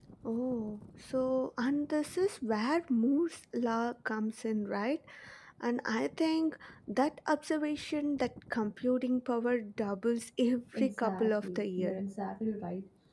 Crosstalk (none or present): present